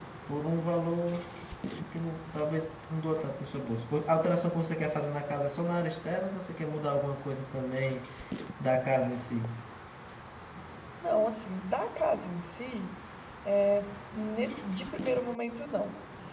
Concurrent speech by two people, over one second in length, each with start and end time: none

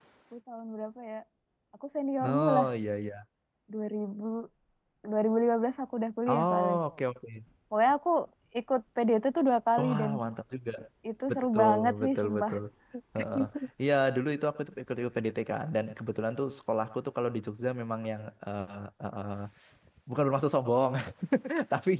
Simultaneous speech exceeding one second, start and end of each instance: 11.3-12.5

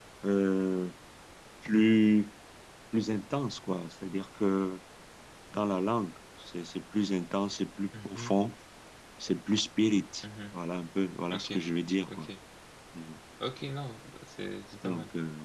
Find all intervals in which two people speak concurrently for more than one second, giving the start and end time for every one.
none

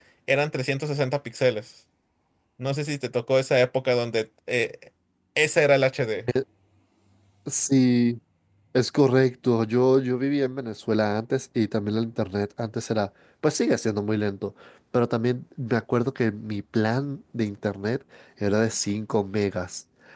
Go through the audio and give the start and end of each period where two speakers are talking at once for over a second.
none

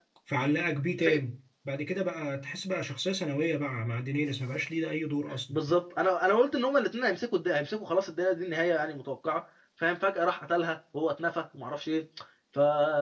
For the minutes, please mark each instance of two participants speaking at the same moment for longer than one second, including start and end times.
none

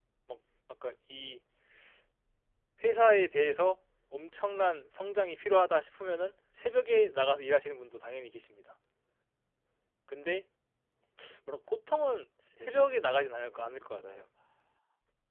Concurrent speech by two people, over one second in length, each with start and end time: 12.6-14.2

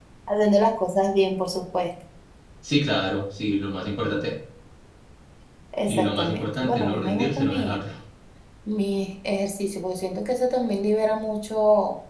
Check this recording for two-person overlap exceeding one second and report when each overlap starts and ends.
5.8-7.8

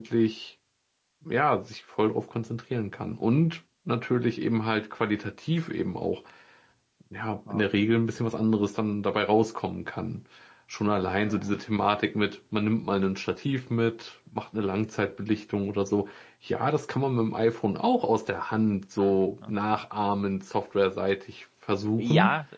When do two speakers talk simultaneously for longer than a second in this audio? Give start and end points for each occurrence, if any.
none

